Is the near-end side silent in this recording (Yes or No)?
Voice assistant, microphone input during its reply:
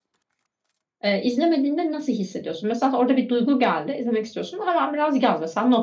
No